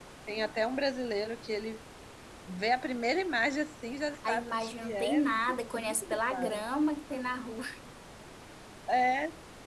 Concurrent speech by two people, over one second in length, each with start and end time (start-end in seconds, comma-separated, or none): 4.3-6.6